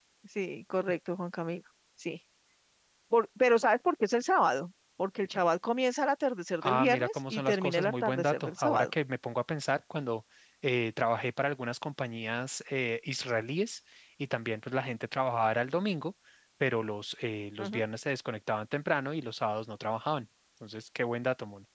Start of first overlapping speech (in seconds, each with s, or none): 6.6 s